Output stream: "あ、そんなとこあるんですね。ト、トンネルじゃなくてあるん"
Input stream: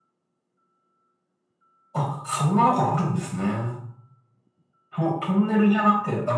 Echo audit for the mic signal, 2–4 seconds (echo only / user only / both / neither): echo only